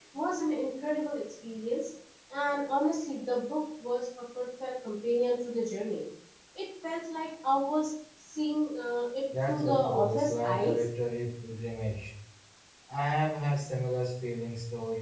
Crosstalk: present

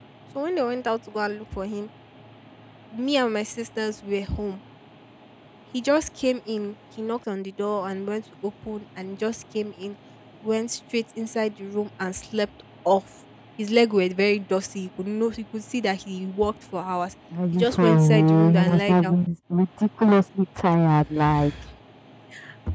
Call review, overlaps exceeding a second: present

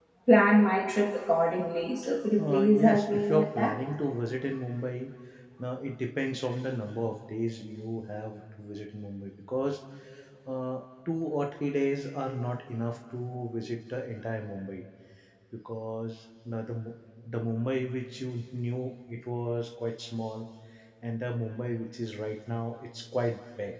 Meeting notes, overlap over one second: present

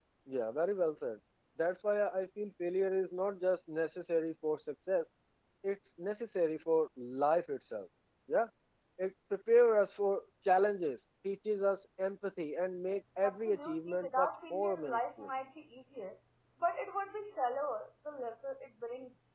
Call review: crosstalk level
present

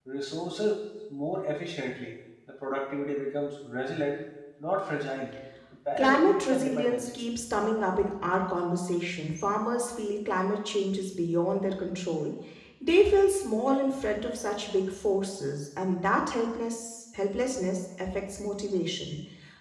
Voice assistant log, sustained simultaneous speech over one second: present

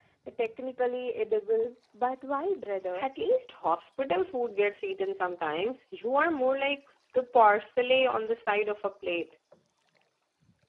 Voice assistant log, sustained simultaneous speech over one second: none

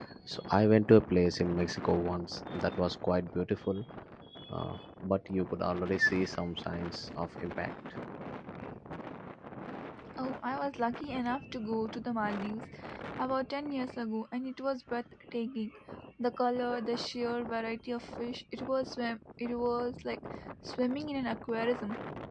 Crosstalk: none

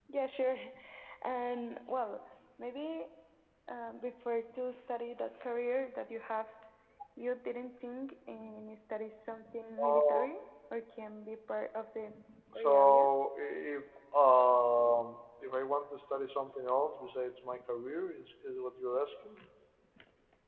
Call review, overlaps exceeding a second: none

